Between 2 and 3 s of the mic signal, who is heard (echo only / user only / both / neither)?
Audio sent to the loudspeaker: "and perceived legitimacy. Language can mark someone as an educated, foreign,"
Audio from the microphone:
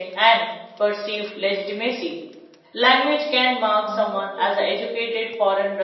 echo only